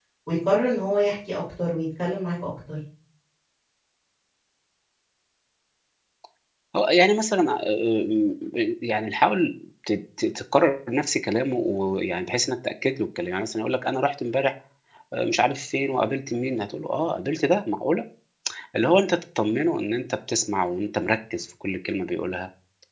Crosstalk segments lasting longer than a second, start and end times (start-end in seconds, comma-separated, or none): none